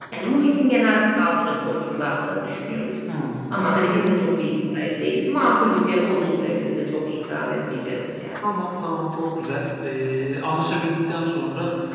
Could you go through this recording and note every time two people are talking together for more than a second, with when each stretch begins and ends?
none

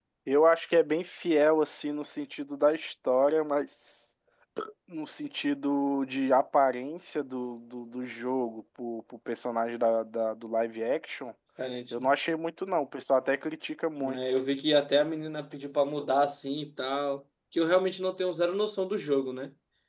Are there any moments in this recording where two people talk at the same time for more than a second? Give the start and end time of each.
none

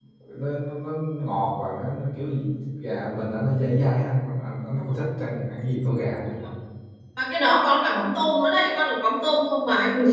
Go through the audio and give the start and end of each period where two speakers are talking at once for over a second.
none

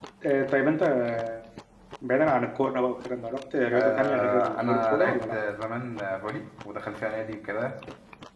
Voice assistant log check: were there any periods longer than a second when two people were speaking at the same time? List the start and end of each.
3.7-5.3

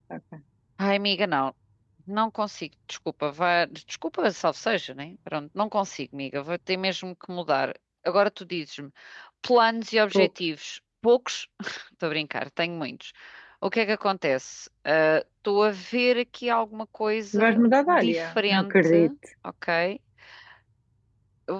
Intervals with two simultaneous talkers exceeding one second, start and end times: 17.4-19.0

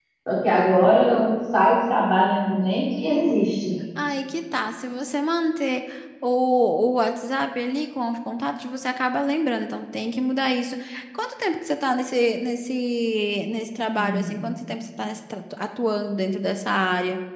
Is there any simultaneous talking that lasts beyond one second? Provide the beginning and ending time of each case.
none

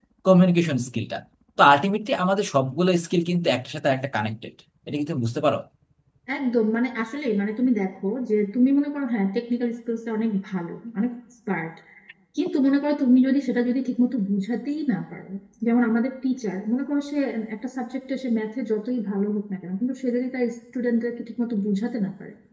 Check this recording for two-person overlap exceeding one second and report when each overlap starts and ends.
none

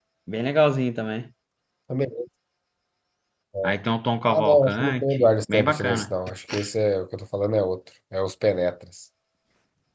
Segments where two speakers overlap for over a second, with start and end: 4.2-6.1

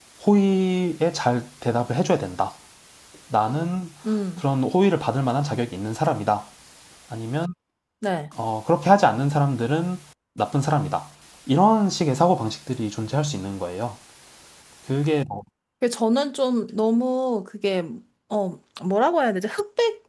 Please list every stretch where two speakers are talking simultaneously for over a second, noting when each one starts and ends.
none

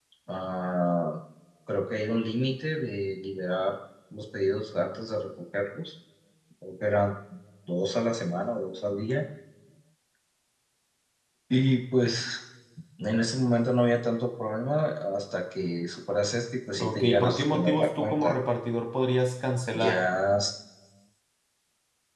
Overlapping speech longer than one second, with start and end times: 16.8-18.4

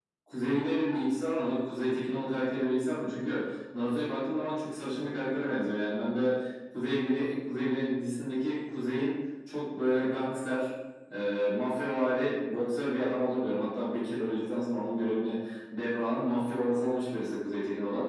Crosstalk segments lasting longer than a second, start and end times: none

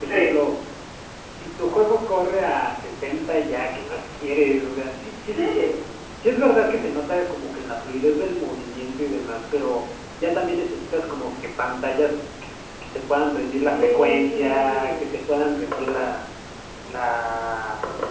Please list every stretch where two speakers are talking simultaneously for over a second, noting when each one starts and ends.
13.5-14.9

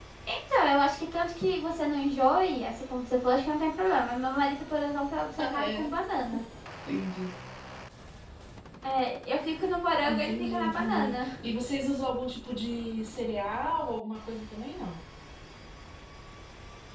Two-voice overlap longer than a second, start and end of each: 10.1-11.3

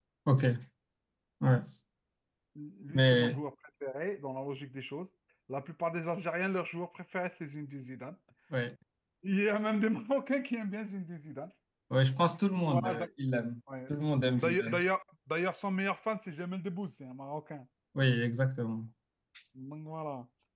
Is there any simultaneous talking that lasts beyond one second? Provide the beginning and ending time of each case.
none

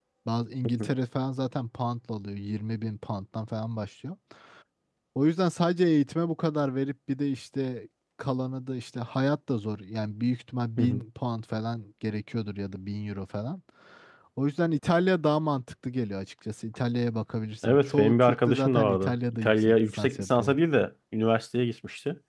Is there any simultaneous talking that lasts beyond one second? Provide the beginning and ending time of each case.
17.7-20.6

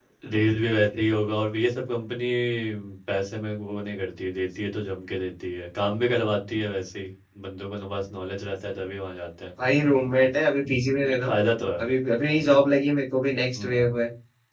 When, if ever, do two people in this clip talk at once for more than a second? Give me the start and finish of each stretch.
none

